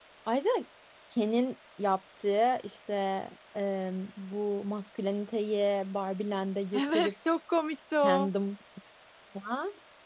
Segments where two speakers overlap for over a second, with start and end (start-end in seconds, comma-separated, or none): none